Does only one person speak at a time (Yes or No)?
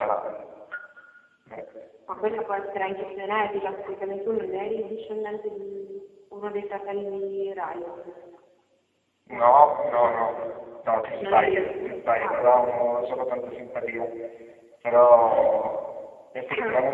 No